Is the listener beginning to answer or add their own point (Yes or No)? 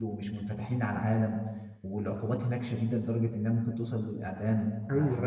Yes